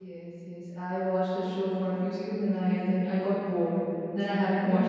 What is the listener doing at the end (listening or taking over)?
taking over